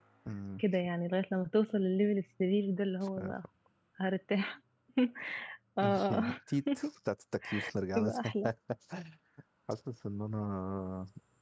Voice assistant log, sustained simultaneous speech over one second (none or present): none